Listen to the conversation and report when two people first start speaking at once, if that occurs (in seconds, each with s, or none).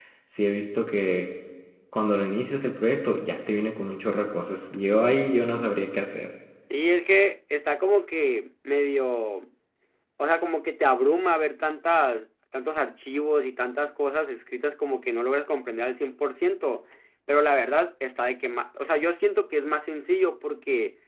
none